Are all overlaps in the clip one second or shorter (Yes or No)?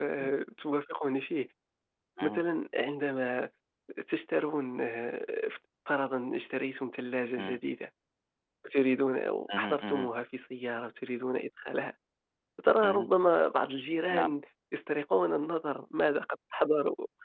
Yes